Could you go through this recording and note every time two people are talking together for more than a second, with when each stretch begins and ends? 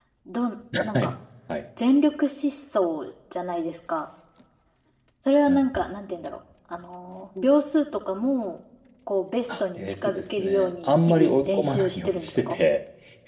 9.8-12.6

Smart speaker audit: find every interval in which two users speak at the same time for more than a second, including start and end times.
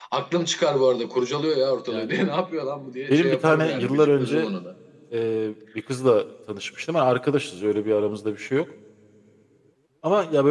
3.1-4.5

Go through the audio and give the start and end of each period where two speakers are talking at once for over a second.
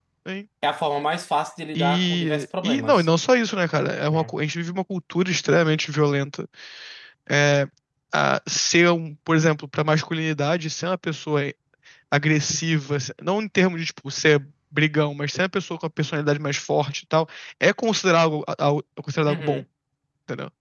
1.8-3.1

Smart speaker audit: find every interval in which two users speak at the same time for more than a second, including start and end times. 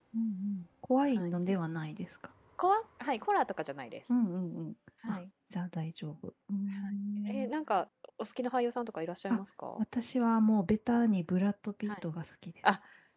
none

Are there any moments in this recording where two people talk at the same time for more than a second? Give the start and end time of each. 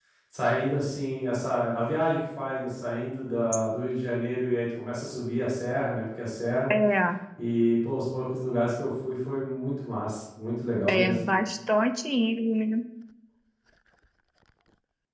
none

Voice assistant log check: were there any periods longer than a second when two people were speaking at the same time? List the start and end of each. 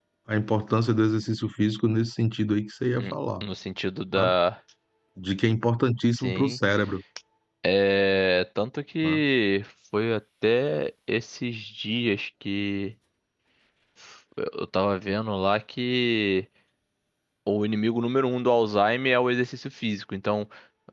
none

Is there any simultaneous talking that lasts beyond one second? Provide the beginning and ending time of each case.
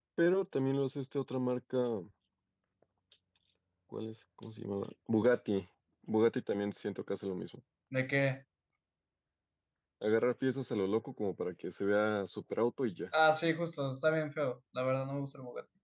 none

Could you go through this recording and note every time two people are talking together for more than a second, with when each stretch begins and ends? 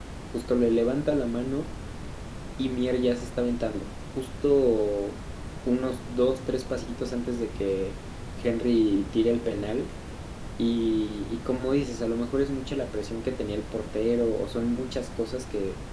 none

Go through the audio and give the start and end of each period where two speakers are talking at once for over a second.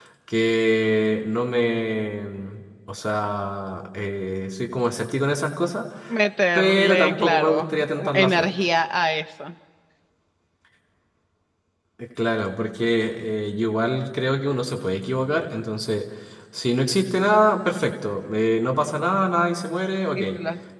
6.5-8.5

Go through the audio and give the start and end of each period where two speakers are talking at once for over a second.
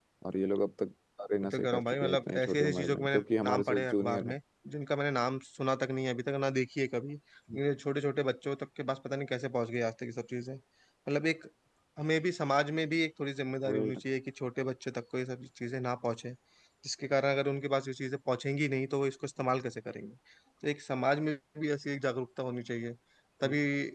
1.4-4.3

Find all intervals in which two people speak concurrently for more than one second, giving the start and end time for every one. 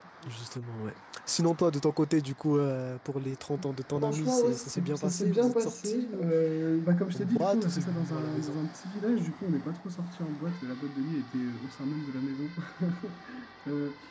3.9-6.2, 7.1-8.6

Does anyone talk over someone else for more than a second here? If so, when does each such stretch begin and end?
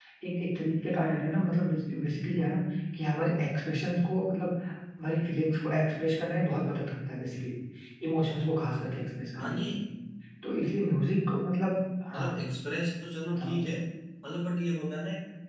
none

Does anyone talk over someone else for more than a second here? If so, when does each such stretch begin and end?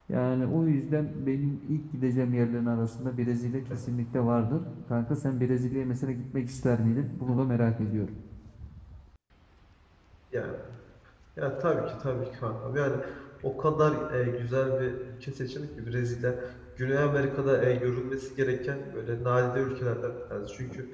none

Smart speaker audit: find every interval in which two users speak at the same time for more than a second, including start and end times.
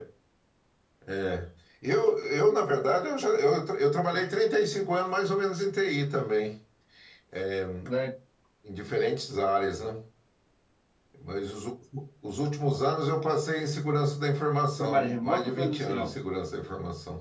14.8-16.2

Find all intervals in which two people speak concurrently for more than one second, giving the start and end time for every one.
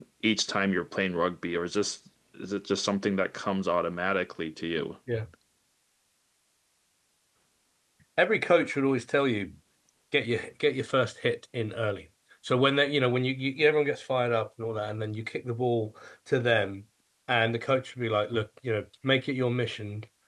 none

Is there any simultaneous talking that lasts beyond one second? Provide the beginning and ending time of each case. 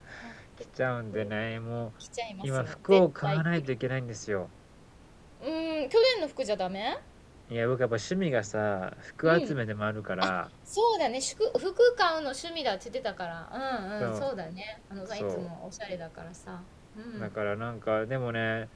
2.4-3.7

